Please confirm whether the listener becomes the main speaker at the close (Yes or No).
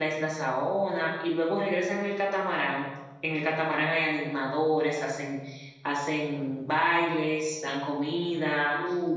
No